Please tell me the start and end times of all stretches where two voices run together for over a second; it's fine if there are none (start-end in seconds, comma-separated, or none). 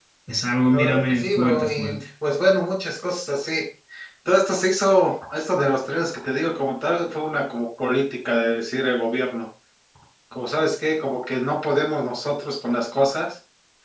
0.7-2.0